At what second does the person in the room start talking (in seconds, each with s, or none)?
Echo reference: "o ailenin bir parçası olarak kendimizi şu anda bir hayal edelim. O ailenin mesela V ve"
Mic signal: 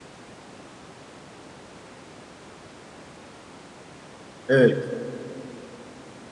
4.5 s